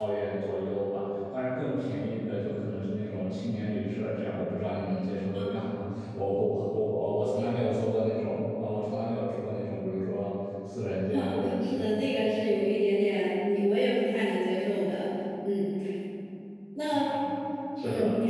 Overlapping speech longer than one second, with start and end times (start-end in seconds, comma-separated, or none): none